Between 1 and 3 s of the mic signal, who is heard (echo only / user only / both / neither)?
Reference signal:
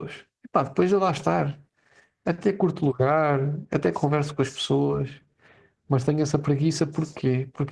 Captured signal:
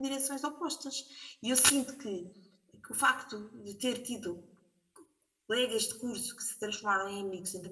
user only